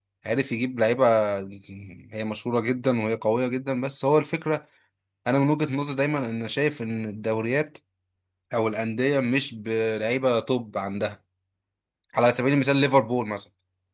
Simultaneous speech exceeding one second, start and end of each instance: none

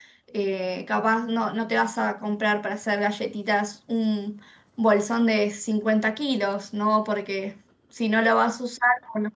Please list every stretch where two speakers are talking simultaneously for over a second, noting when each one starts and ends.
none

